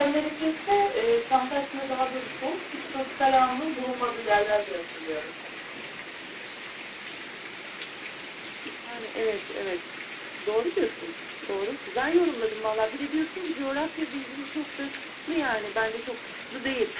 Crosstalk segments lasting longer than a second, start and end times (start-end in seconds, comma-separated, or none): none